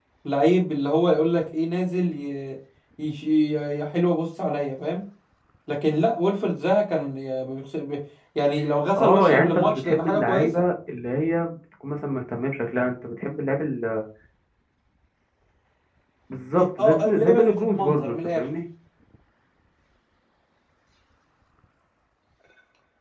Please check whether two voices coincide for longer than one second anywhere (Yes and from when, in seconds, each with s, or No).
Yes, from 9.0 s